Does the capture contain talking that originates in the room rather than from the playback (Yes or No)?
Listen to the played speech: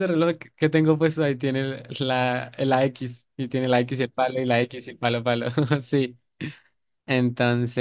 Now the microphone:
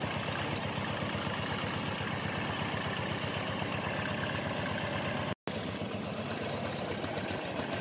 No